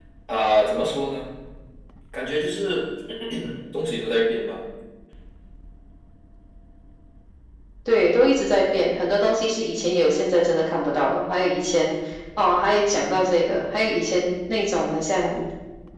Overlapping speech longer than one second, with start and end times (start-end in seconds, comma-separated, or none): none